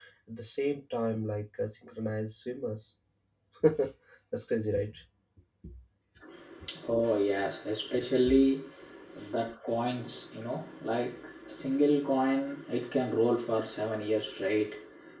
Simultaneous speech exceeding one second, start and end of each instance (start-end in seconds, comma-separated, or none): none